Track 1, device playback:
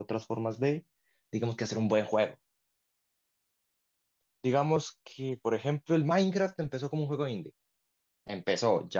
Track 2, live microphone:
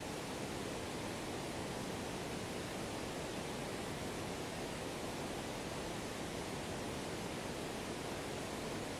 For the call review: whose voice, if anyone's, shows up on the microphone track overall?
neither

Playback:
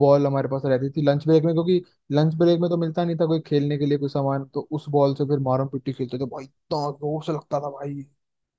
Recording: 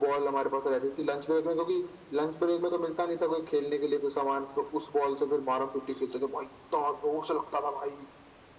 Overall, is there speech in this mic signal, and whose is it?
echo only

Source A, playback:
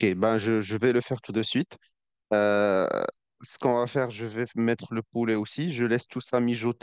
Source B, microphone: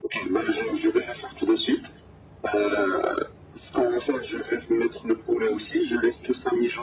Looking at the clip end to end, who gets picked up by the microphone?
echo only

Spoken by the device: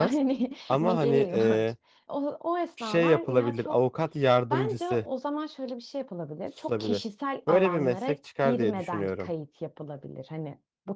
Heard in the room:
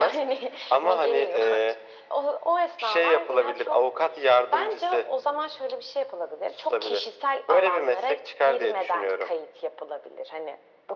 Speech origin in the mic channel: echo only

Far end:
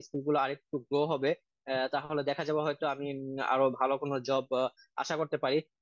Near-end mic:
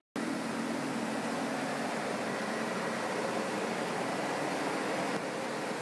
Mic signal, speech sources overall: neither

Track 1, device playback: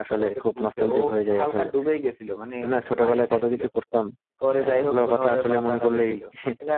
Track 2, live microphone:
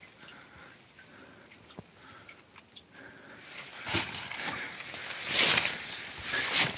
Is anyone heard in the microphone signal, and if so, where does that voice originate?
neither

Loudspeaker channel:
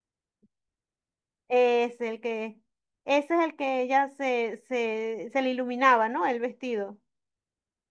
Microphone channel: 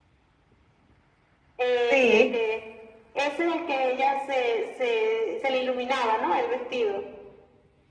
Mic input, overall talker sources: both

